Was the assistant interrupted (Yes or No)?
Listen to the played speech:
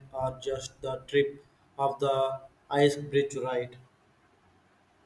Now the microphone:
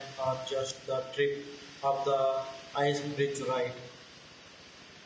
No